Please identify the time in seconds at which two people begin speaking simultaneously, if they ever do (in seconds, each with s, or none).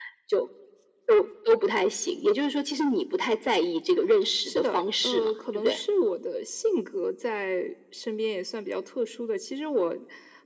4.4 s